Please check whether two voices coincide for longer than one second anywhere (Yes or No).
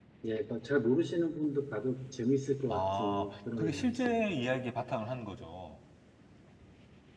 Yes